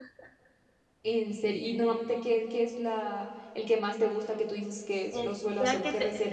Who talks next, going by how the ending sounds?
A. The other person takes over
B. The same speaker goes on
A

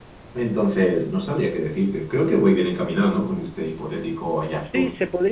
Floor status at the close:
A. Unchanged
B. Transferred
B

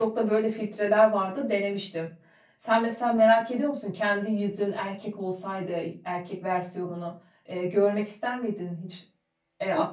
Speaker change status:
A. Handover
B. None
A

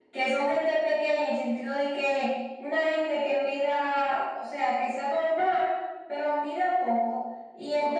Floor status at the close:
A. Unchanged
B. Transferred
A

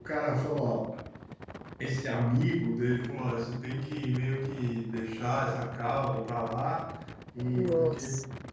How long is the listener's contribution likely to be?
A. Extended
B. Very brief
B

